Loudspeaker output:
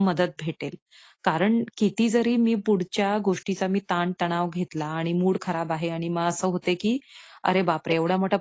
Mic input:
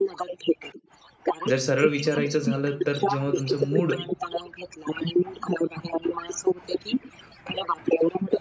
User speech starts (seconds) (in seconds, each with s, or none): 1.5 s